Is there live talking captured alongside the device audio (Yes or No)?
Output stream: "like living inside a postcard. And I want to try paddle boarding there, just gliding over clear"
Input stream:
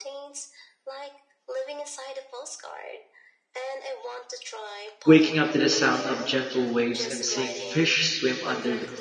Yes